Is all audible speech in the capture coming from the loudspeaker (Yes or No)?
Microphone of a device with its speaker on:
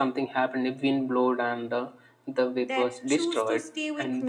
No